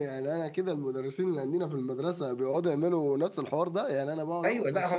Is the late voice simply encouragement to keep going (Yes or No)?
No